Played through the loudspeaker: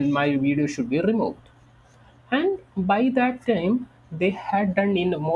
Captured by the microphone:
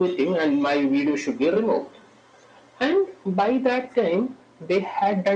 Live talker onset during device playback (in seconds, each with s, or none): none